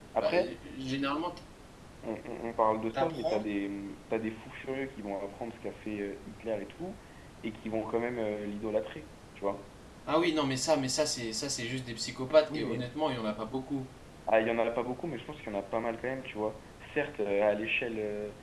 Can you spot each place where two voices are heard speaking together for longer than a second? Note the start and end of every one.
none

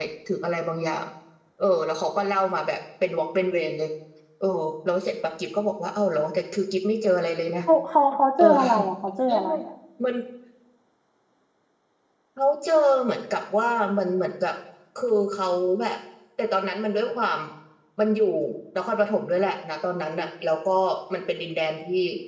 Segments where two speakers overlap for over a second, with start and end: none

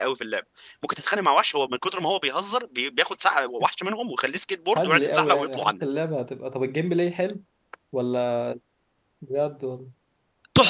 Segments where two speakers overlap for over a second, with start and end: 4.8-6.0

